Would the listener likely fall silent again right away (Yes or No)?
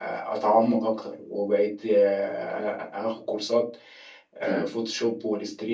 Yes